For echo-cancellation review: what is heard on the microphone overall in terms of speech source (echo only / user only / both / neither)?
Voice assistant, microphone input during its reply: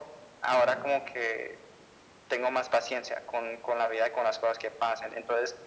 both